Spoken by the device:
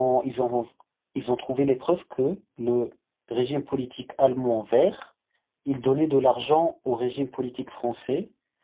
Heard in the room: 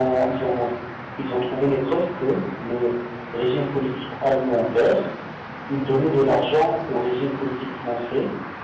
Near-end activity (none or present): none